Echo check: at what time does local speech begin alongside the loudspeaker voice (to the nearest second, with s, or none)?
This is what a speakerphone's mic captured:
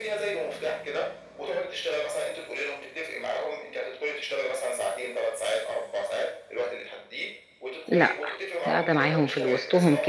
8 s